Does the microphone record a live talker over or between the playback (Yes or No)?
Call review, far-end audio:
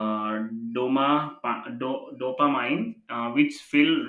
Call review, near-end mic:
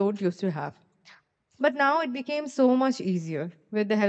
Yes